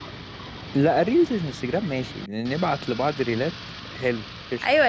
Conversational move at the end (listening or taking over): taking over